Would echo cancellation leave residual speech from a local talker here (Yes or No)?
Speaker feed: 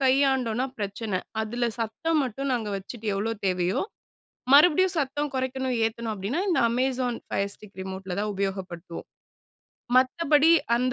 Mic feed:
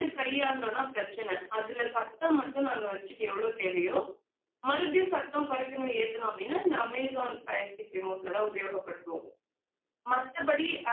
No